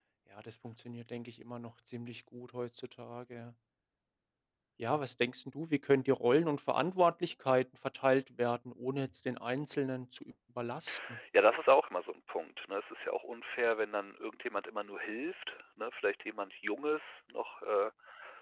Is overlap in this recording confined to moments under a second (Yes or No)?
Yes